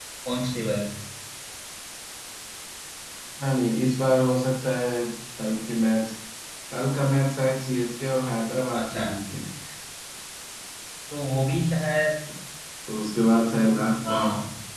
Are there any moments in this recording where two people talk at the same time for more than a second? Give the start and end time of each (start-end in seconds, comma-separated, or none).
none